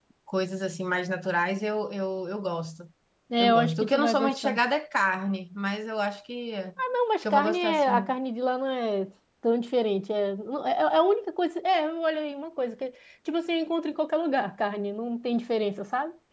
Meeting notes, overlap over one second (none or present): present